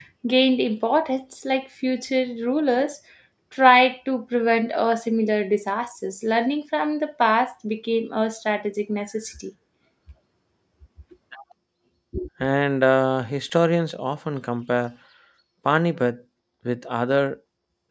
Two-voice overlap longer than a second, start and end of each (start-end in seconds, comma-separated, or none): none